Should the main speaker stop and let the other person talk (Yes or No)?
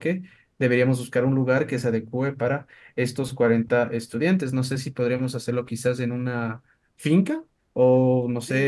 Yes